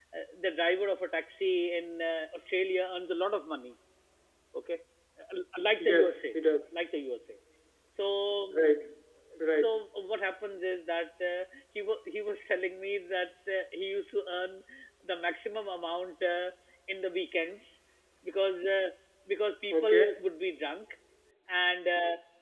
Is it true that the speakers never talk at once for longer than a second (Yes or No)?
Yes